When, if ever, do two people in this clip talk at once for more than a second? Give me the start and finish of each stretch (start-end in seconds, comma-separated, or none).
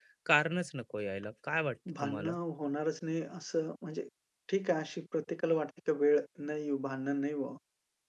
none